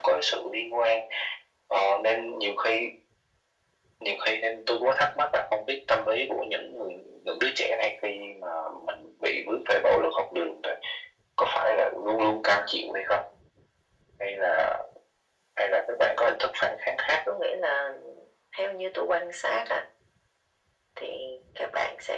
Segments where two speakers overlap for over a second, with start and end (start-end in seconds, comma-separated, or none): none